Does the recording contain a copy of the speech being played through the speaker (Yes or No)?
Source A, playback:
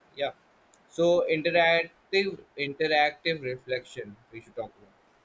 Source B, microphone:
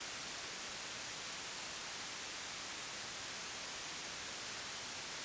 No